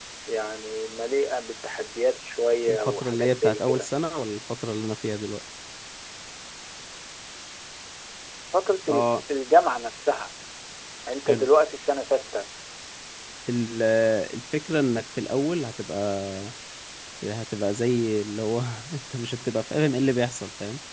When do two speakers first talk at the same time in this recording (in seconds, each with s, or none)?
2.7 s